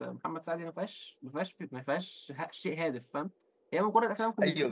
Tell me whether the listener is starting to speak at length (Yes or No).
Yes